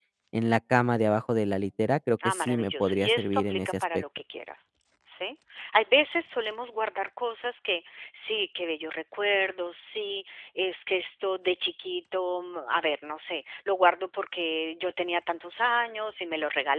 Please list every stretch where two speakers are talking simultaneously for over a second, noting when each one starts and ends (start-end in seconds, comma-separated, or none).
2.2-4.0